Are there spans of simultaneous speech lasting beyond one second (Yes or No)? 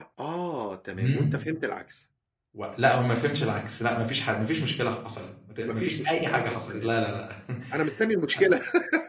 Yes